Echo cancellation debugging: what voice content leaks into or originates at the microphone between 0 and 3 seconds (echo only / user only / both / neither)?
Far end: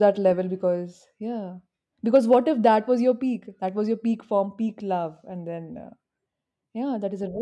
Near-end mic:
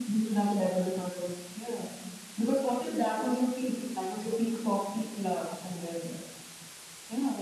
echo only